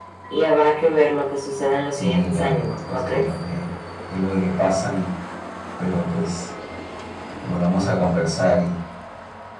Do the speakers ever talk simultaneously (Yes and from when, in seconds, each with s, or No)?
Yes, from 1.9 s